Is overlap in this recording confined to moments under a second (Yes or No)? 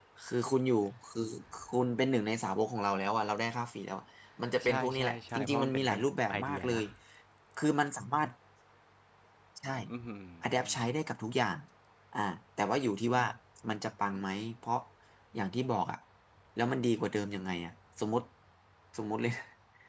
No